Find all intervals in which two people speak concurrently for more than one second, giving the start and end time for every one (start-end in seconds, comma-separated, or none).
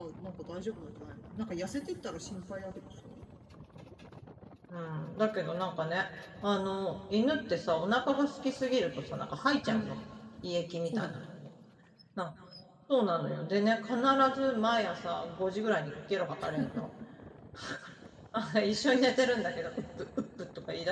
none